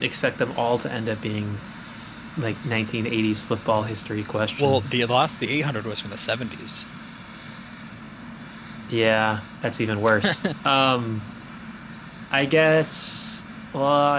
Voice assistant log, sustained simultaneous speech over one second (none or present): none